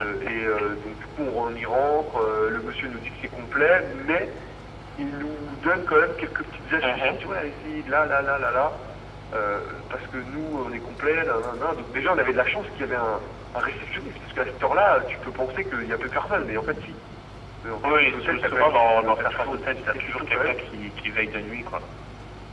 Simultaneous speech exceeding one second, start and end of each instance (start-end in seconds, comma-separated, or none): 17.8-20.6